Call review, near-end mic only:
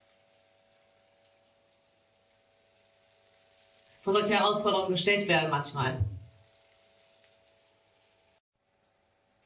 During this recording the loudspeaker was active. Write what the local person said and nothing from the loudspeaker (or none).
vor solche Herausforderungen gestellt werden manchmal.